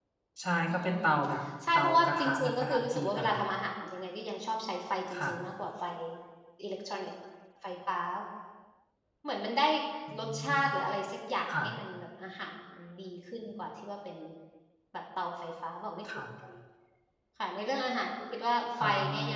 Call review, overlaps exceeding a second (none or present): present